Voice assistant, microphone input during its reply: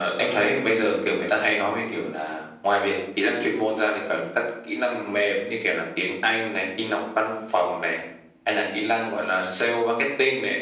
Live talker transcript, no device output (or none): none